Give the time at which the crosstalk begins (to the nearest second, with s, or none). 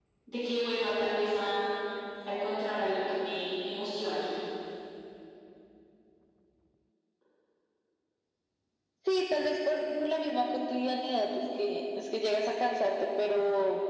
none